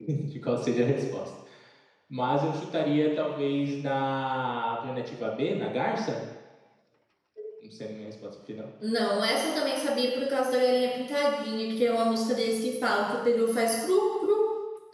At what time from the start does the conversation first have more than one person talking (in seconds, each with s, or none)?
none